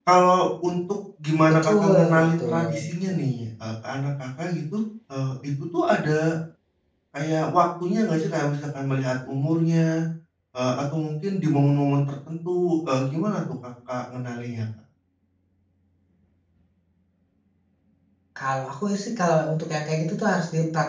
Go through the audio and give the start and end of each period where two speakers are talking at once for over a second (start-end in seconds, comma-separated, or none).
1.5-2.7